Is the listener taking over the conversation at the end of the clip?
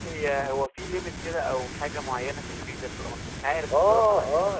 Yes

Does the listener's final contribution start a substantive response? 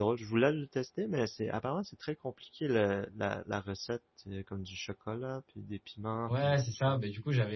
Yes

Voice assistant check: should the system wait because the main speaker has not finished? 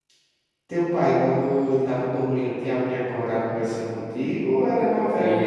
No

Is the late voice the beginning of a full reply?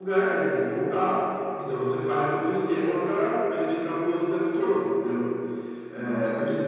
No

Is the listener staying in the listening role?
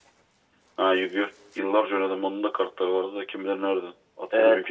No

